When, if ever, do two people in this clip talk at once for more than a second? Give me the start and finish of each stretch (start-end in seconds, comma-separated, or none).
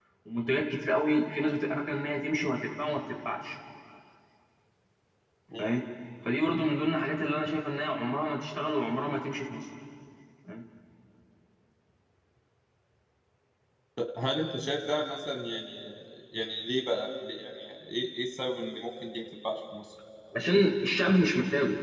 none